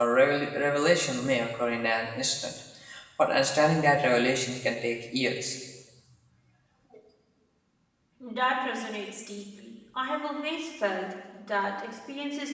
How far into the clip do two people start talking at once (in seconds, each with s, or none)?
none